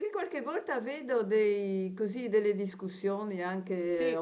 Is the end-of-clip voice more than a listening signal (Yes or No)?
No